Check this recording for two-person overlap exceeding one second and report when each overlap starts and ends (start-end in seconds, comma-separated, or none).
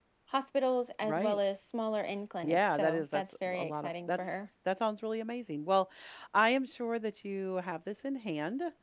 2.4-4.3